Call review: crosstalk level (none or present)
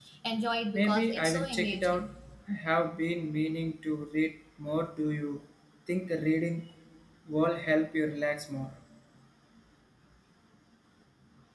present